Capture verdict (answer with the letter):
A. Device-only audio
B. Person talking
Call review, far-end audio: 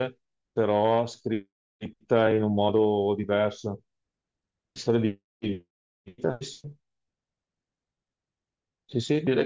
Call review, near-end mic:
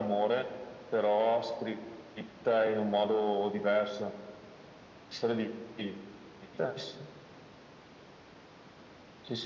A